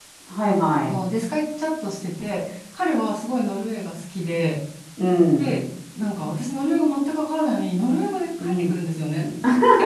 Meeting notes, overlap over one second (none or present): none